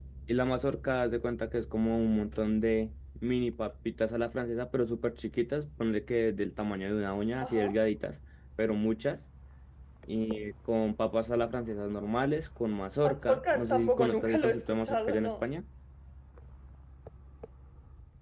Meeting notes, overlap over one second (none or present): present